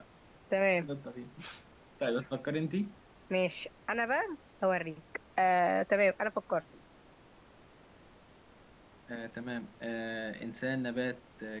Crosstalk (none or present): none